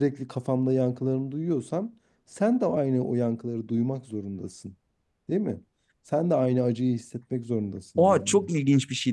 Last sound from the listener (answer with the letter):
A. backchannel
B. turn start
B